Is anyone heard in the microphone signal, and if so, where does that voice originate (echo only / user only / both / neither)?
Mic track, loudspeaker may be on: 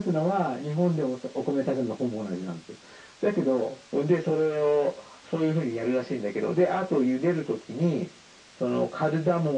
echo only